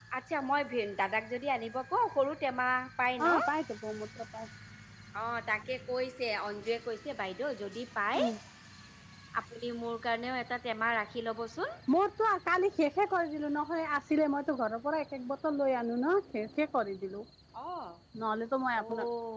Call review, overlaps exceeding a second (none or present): none